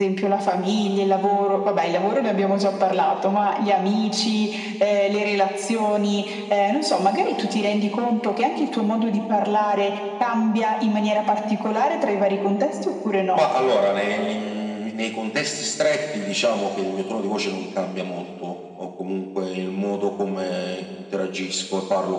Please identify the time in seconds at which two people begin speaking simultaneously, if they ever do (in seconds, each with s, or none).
none